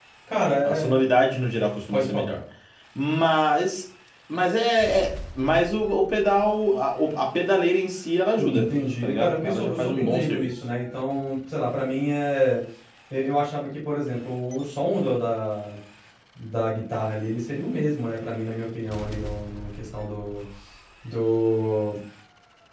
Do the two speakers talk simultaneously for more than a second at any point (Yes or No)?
Yes